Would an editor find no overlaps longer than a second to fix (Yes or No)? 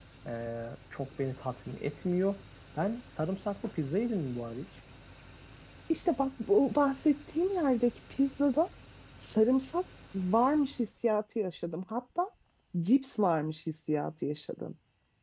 Yes